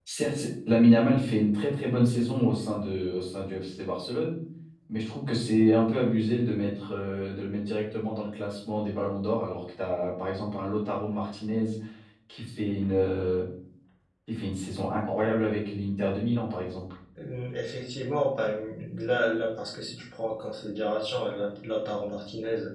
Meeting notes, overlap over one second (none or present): none